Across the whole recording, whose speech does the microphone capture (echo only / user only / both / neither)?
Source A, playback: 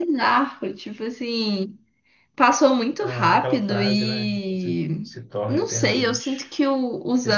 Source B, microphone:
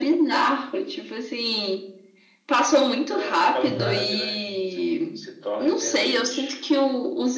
both